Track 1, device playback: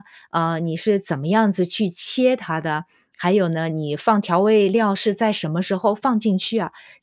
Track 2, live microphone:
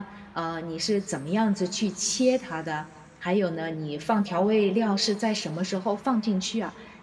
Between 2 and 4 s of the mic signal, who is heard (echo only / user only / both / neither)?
echo only